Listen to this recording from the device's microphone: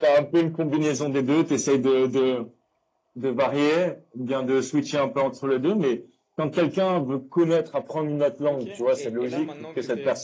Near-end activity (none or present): present